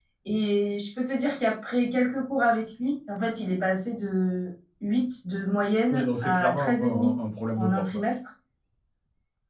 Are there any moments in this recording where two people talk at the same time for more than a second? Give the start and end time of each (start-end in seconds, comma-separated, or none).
5.9-7.2